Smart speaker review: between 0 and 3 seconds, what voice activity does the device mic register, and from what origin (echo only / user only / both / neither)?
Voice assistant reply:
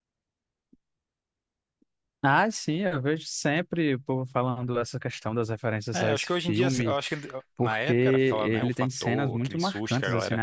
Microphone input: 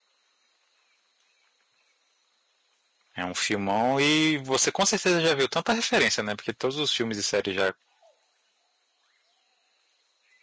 neither